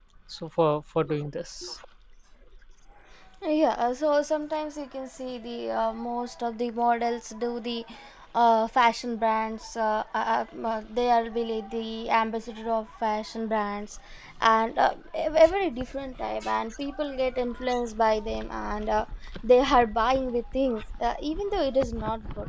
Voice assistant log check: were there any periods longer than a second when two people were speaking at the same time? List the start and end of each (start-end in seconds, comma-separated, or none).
none